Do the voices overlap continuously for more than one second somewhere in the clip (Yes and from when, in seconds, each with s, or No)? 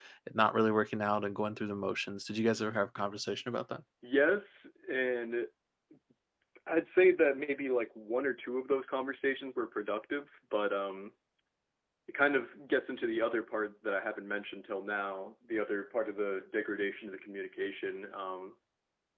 No